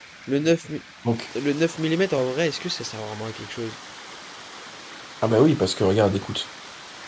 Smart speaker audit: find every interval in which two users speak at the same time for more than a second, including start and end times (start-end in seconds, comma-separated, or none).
none